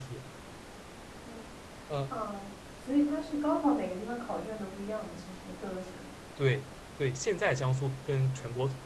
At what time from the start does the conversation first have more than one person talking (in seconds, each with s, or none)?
none